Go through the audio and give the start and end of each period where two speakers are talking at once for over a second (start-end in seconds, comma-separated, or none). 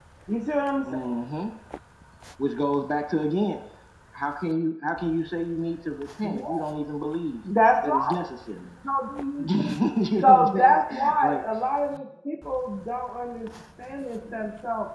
10.2-11.4